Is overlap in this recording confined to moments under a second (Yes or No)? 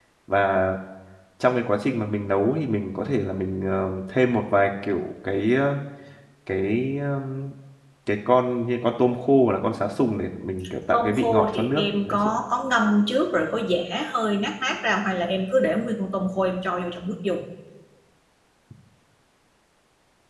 No